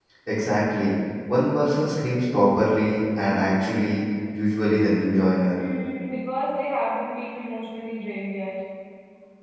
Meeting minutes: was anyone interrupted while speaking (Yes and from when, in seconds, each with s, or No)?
No